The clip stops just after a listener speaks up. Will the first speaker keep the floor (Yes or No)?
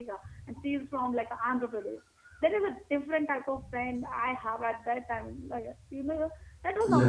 Yes